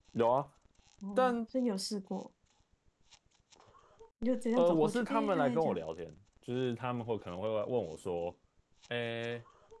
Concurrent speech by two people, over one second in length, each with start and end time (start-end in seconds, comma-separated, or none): 4.6-5.8